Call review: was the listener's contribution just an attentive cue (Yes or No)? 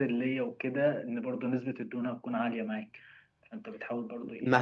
No